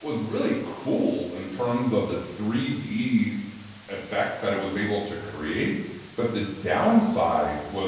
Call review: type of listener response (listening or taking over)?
listening